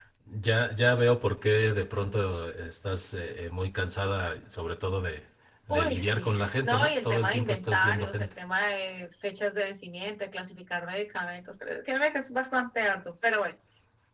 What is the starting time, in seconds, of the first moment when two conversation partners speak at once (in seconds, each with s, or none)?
5.7 s